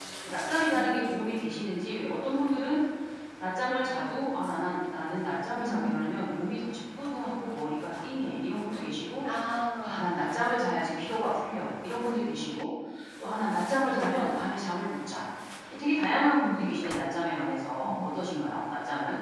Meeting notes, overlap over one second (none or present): none